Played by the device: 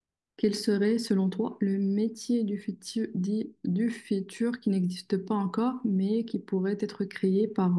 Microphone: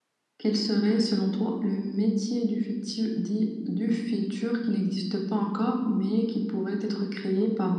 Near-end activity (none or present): present